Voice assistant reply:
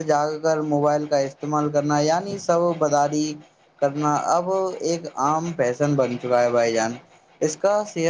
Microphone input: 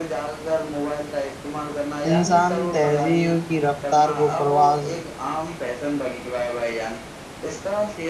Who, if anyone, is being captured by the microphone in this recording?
both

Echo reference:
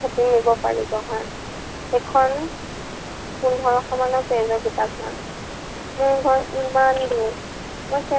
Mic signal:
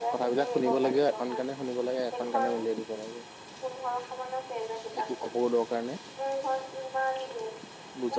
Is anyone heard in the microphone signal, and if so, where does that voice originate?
both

